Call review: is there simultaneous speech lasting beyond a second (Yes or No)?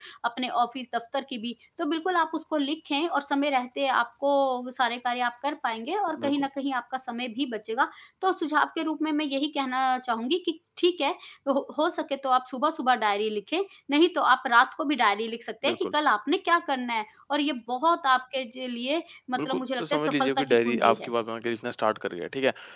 Yes